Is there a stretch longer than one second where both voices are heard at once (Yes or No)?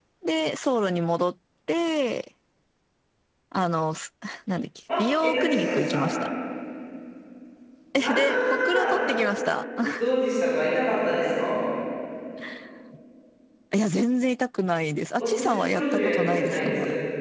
Yes